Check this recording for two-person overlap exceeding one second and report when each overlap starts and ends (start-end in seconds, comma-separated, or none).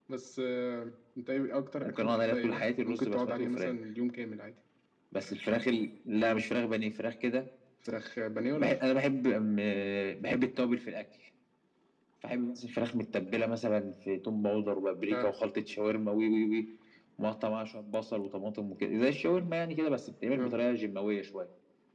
1.8-3.7